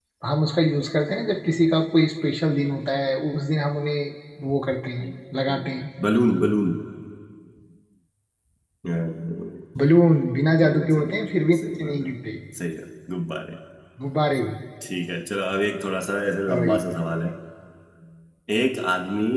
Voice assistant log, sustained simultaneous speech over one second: present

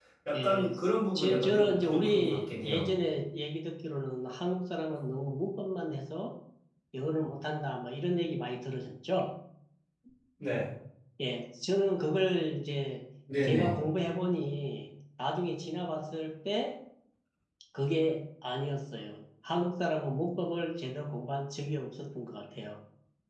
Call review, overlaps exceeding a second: present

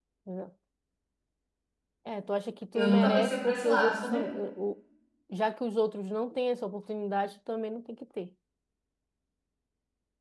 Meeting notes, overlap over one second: present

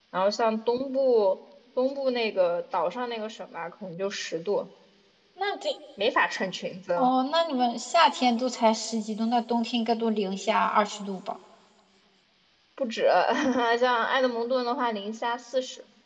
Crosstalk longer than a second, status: none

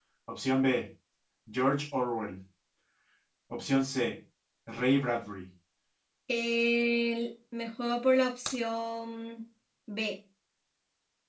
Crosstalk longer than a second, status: none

